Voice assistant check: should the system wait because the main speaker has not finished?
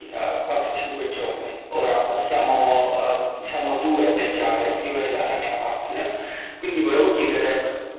Yes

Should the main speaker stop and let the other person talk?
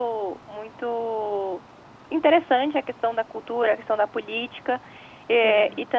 No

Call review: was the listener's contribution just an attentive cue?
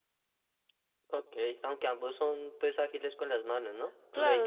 No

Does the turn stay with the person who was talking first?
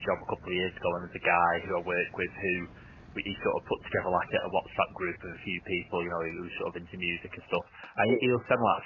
Yes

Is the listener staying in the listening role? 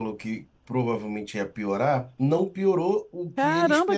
No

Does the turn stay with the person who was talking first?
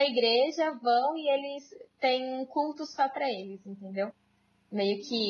Yes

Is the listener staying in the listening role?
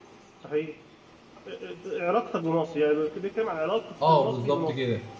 No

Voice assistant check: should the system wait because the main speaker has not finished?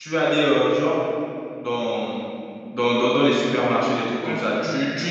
Yes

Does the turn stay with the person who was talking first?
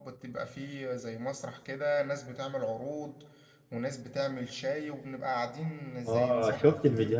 No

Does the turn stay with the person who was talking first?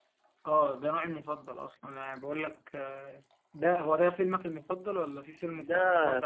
No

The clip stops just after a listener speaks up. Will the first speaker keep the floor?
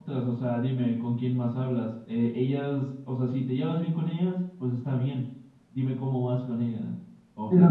No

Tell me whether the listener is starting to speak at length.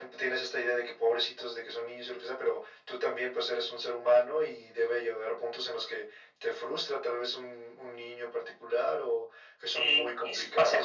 Yes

